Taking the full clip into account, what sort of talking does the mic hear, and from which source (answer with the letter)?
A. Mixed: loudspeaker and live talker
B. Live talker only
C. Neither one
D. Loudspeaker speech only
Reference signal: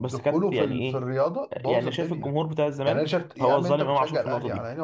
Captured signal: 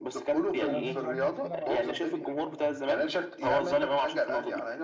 A